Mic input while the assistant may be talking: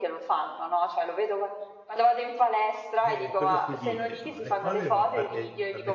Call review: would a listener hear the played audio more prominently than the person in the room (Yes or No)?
Yes